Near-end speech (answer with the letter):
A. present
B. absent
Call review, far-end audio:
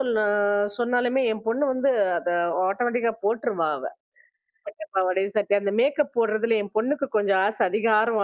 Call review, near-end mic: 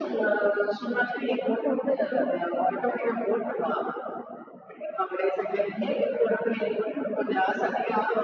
B